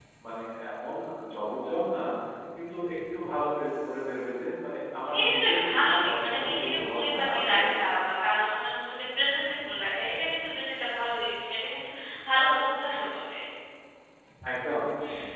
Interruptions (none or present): present